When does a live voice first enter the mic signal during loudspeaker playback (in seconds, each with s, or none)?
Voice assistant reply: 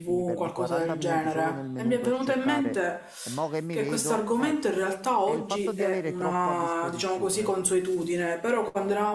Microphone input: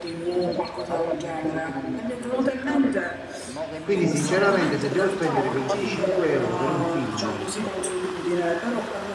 3.8 s